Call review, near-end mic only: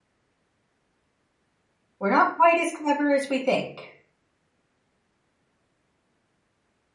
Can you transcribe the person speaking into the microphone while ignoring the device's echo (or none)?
We're not quite as clever as we think.